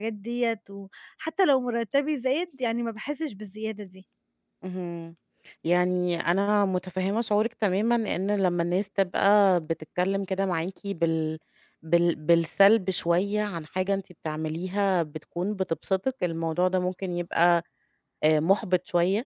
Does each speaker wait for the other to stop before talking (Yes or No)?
Yes